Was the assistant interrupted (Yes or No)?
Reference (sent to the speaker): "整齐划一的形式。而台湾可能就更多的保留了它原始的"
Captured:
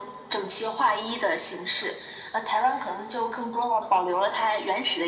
No